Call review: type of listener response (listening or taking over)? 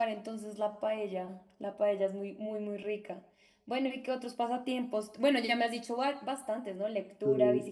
listening